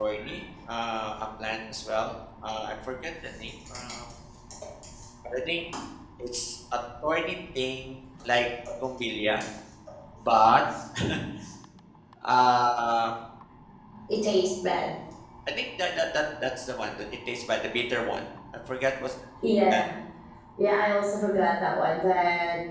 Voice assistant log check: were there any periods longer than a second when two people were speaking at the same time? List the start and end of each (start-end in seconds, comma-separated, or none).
none